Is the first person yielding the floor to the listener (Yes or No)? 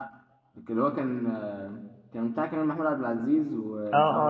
Yes